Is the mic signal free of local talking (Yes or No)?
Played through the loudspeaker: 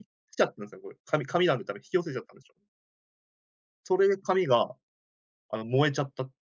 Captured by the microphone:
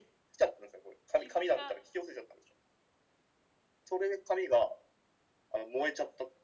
No